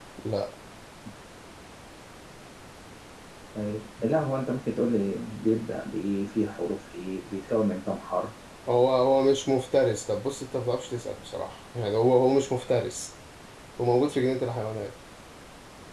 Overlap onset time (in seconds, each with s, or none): none